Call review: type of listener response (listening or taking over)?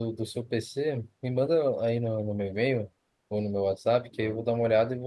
listening